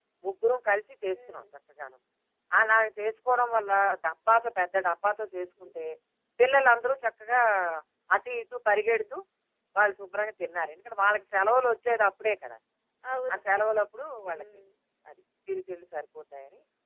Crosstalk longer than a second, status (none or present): none